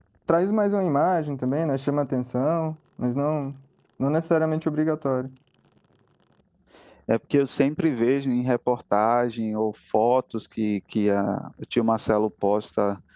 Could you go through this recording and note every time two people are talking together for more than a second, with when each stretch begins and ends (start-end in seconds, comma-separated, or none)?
none